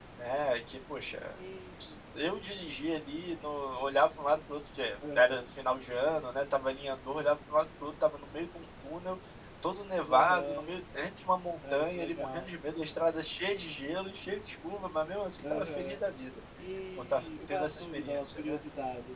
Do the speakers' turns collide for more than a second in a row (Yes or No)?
Yes